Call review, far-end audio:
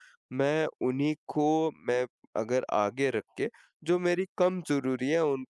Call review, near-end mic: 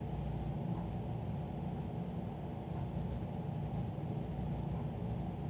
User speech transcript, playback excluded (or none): none